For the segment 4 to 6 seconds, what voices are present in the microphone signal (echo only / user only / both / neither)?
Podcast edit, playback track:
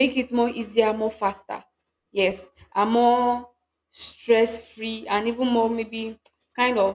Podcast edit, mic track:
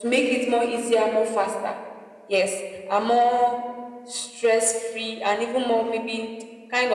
echo only